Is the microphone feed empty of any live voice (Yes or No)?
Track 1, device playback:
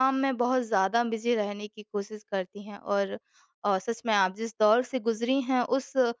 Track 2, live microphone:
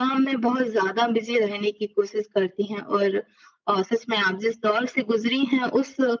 Yes